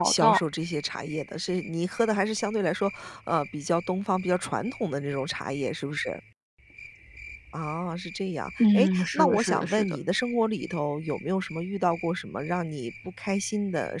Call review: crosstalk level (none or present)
present